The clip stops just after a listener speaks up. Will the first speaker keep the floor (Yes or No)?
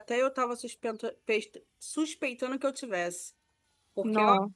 Yes